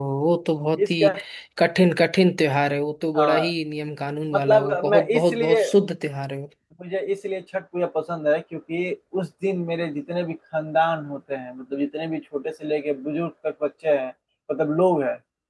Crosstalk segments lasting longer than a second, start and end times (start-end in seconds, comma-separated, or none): 4.3-5.6